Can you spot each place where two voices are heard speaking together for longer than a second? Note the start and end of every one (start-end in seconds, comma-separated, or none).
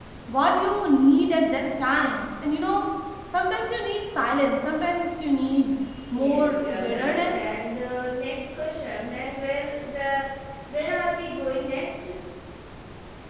6.1-7.4